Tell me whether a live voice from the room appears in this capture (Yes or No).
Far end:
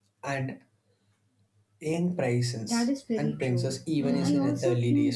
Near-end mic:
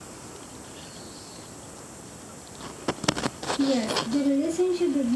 Yes